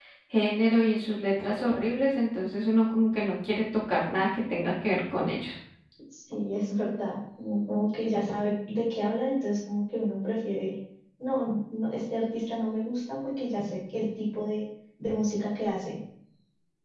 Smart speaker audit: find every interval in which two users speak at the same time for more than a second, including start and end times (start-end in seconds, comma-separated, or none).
none